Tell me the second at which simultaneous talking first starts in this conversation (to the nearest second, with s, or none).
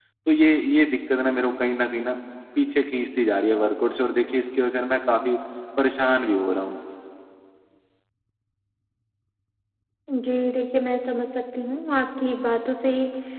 none